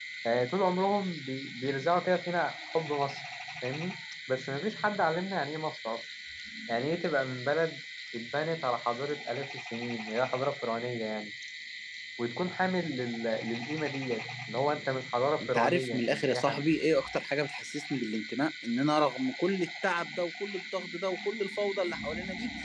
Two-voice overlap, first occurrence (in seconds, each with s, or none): 15.4 s